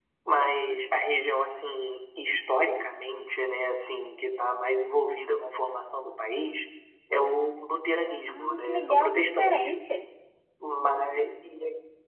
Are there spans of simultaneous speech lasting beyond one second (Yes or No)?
Yes